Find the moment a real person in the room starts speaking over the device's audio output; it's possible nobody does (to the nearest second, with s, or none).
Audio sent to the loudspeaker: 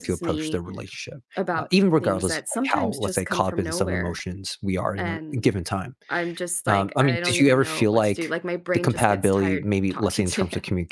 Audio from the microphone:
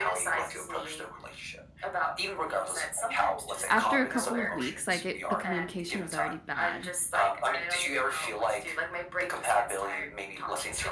4 s